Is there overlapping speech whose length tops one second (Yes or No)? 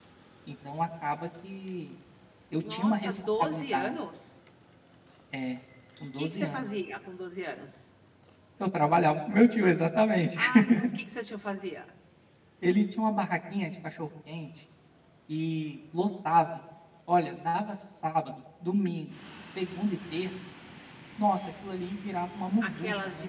Yes